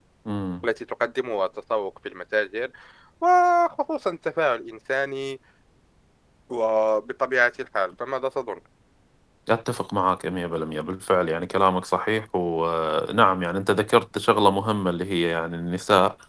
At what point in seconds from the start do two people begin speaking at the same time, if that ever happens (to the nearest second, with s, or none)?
none